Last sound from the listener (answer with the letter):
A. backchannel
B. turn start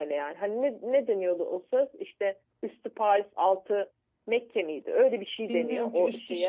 B